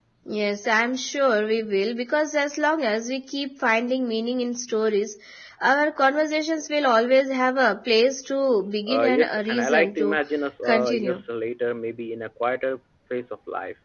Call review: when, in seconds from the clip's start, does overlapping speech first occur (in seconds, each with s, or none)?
8.9 s